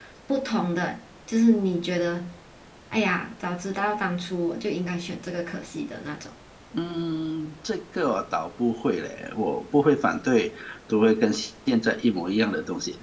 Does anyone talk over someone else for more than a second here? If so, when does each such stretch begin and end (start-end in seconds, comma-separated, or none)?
none